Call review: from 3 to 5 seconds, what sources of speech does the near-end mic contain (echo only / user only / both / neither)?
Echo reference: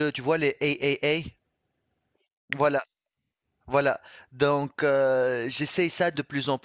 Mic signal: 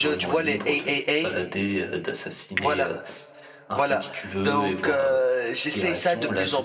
both